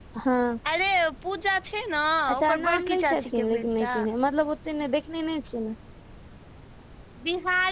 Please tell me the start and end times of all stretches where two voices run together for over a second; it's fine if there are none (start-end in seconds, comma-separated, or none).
2.3-3.9